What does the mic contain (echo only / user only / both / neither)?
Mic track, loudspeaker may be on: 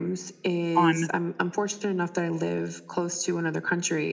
both